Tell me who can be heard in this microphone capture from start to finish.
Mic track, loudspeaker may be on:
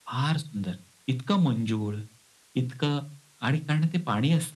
echo only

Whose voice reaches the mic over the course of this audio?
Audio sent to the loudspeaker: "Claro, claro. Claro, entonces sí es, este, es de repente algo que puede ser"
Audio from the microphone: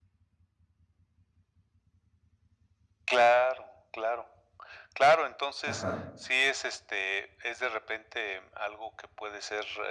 both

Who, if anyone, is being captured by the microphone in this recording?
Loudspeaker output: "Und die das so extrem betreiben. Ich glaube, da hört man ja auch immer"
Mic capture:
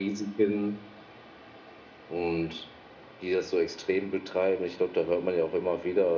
echo only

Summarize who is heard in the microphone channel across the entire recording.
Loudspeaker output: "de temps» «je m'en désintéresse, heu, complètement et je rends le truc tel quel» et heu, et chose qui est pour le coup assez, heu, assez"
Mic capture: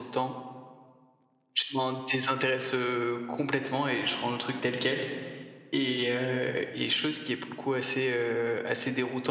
echo only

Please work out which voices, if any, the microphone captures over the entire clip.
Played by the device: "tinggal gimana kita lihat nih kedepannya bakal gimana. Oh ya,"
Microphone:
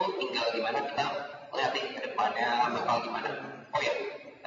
both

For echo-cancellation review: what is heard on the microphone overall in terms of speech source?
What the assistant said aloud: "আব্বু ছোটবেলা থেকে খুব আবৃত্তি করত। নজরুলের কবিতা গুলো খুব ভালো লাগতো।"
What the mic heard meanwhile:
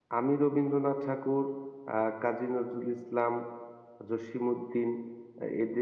user only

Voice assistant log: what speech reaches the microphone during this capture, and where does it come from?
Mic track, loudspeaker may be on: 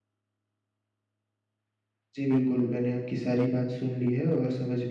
user only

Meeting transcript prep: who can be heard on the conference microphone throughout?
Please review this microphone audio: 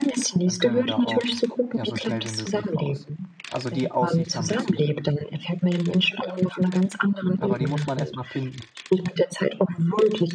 both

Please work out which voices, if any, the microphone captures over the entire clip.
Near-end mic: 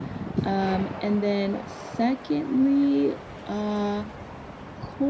user only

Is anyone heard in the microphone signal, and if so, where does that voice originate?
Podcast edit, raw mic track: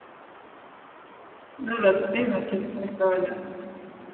user only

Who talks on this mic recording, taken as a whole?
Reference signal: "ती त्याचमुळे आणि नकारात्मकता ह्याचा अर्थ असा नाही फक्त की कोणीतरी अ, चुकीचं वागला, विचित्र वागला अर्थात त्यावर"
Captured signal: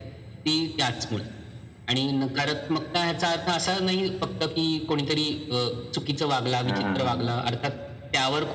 both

